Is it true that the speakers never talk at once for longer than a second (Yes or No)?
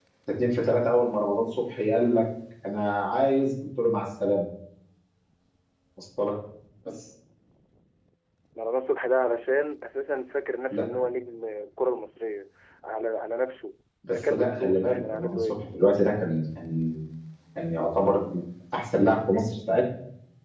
No